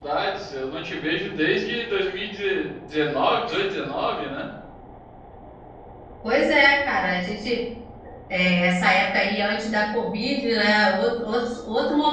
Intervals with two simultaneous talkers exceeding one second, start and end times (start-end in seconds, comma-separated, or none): none